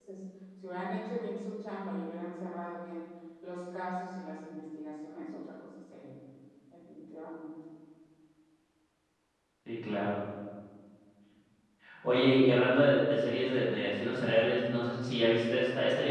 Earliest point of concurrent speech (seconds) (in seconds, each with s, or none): none